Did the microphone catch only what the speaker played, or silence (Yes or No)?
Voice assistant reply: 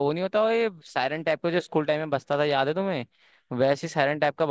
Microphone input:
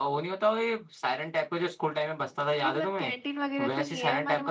No